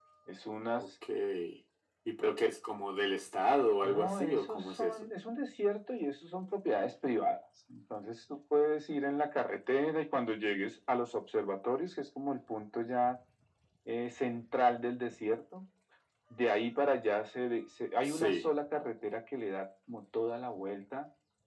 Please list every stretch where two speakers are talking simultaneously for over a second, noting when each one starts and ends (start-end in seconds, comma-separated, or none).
3.8-5.0